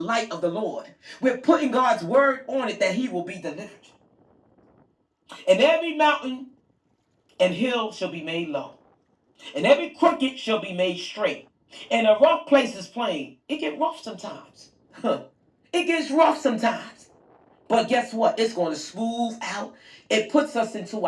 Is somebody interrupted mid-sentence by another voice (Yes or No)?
No